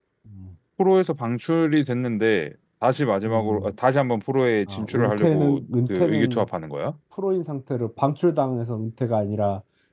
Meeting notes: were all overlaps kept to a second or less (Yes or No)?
No